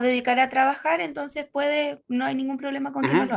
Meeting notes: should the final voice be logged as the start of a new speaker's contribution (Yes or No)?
Yes